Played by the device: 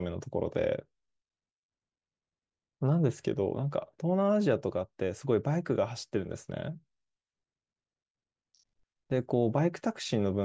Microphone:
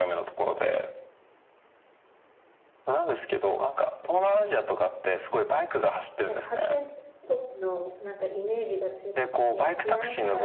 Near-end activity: present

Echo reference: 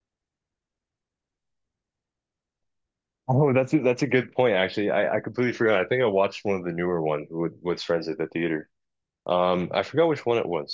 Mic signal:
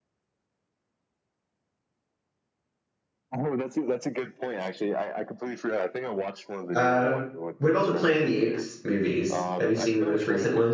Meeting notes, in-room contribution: present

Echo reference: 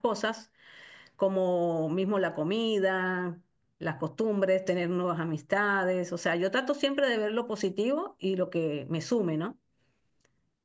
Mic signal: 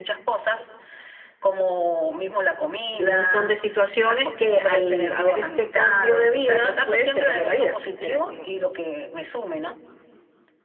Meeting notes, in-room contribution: present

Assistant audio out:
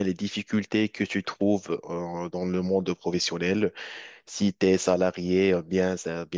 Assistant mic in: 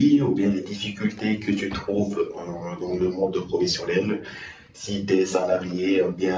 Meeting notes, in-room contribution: none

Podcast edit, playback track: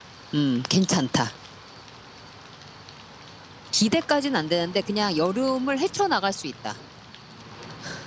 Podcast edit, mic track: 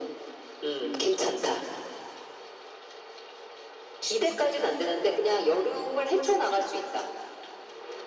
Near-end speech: none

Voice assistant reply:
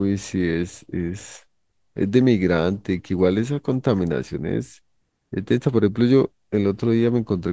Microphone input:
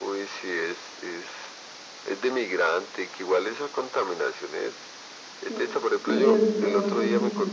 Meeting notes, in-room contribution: present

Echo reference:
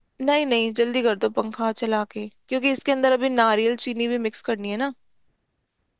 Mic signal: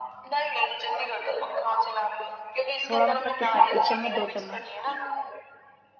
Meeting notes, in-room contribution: present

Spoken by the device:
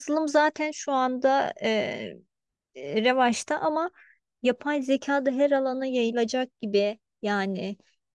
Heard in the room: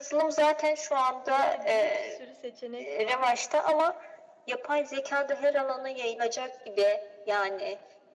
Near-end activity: present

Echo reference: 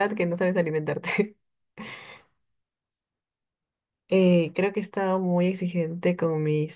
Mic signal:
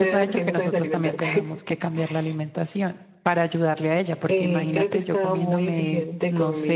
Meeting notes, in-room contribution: present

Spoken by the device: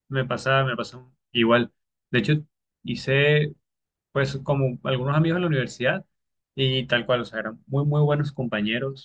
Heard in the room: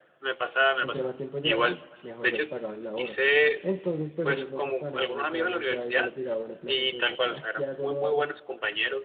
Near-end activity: present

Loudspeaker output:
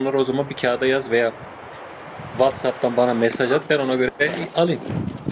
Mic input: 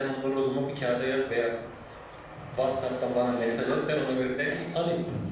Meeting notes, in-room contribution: none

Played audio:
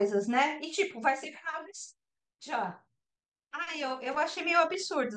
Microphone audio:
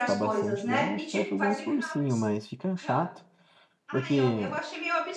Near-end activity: present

